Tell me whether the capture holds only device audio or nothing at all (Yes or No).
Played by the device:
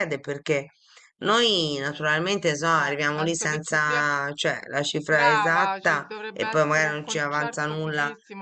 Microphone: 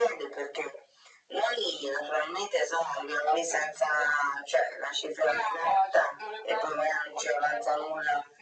Yes